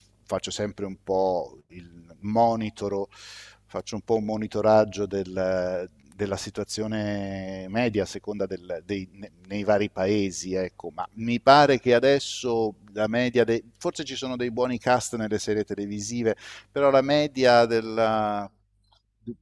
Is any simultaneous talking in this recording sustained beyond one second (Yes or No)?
No